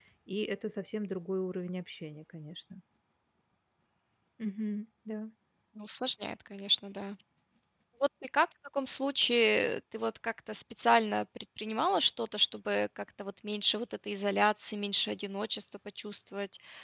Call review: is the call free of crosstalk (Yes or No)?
Yes